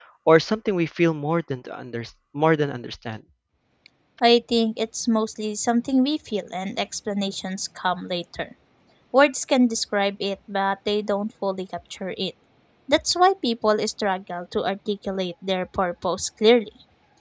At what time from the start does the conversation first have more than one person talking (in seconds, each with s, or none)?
none